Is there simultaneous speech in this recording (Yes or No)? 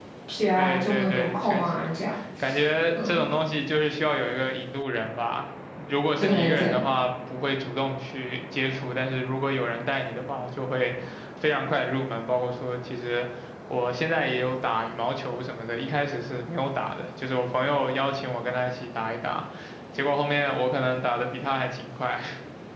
Yes